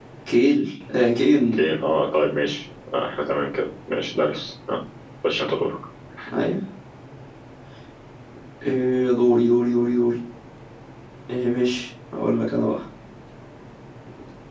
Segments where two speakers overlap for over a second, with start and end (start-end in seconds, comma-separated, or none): none